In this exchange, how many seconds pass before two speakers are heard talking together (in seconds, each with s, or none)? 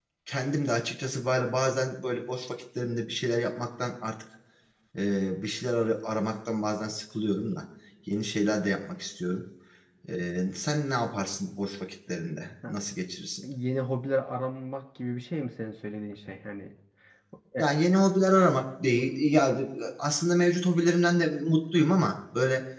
none